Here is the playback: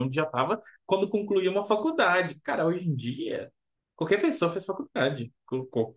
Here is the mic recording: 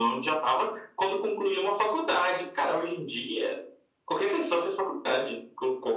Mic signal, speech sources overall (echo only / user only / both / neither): echo only